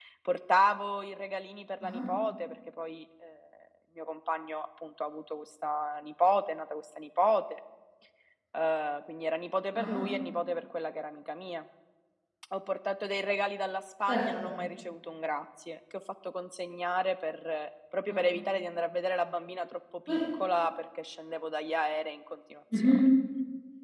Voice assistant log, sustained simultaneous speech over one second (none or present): none